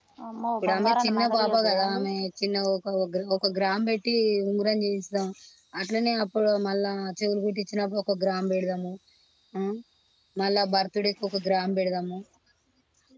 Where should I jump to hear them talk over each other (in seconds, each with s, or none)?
0.6 s